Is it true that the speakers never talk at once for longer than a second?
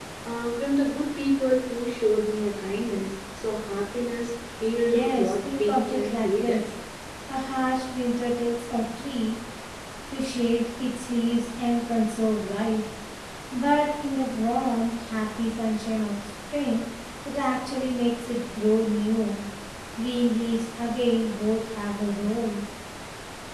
No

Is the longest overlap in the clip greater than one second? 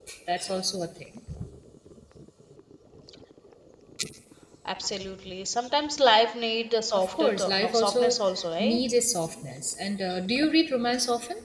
Yes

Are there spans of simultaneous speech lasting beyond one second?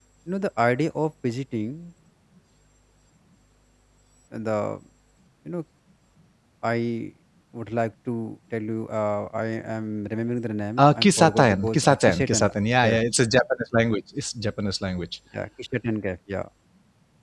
Yes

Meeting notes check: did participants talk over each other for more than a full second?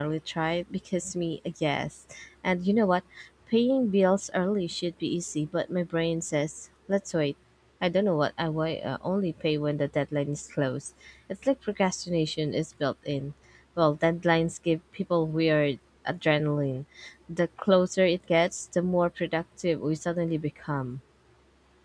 No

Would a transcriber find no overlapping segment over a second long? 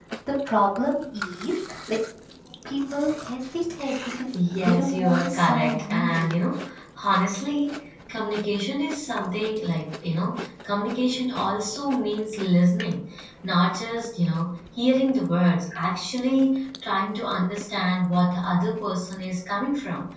No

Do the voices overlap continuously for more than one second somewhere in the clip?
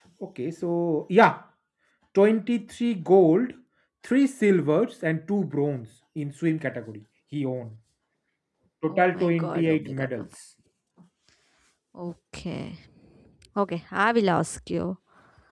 Yes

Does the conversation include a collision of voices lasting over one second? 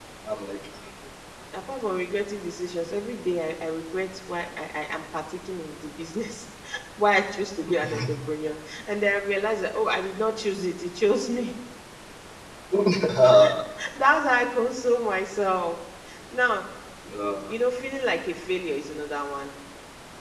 No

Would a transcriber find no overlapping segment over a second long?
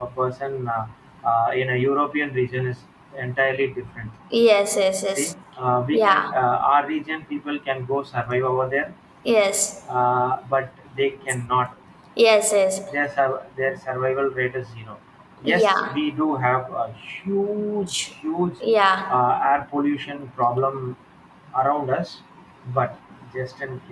Yes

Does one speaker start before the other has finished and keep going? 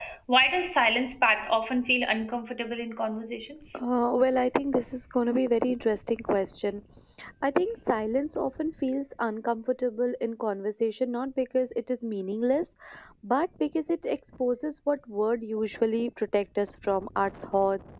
No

